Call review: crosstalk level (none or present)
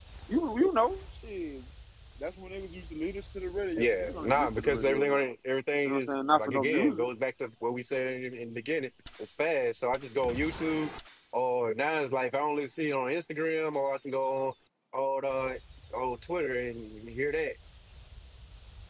present